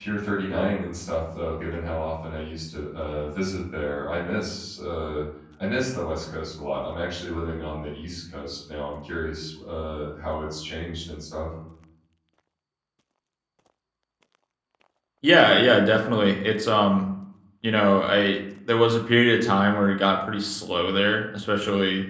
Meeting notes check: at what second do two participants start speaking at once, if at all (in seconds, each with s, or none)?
none